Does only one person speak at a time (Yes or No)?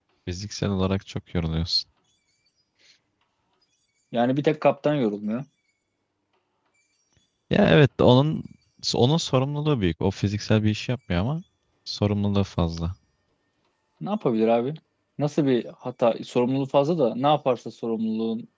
Yes